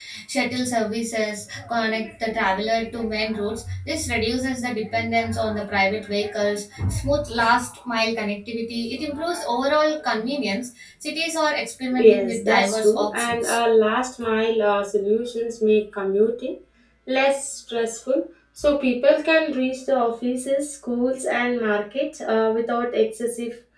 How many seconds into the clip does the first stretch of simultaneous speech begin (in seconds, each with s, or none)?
11.9 s